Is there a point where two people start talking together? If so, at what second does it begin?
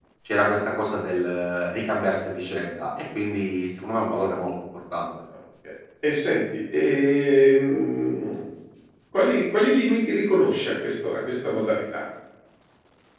none

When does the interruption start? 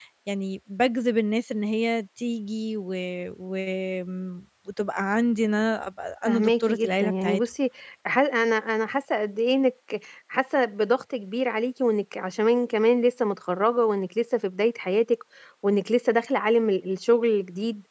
6.2 s

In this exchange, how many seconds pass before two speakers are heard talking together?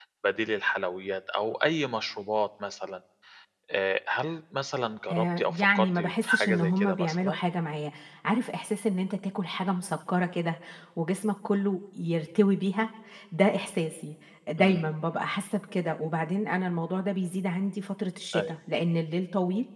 5.1 s

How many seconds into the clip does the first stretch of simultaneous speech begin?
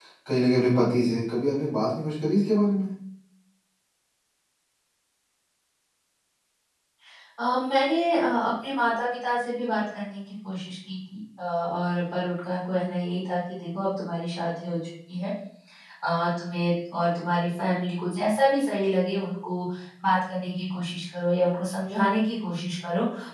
none

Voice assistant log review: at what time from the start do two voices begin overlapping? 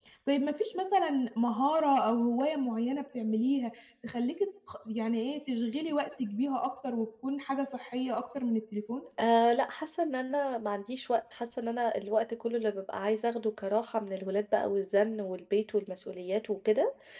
none

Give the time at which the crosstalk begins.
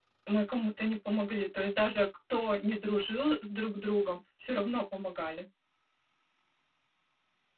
none

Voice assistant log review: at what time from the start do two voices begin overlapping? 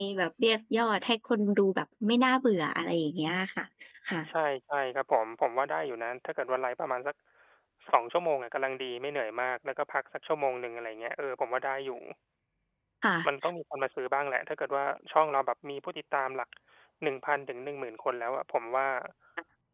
none

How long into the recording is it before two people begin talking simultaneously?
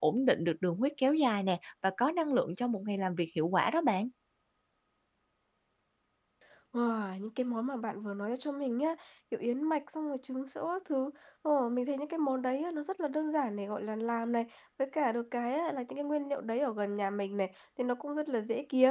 none

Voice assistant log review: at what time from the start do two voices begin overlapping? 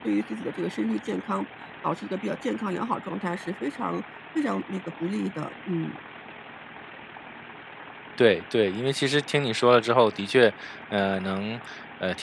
none

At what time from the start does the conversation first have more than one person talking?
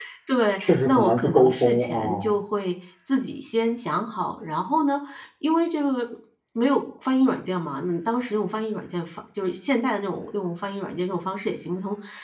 0.6 s

